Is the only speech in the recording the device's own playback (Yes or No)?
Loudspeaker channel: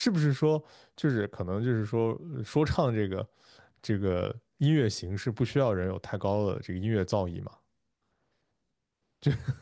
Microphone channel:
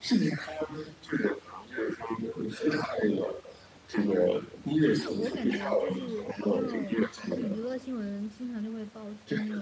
No